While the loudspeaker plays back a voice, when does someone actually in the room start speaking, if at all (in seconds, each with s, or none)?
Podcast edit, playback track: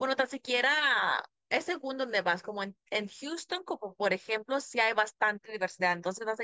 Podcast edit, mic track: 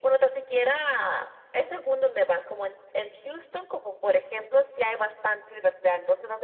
none